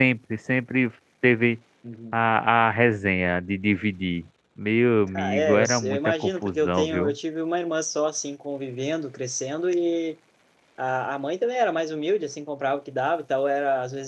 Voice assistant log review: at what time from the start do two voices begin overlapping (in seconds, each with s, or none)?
5.1 s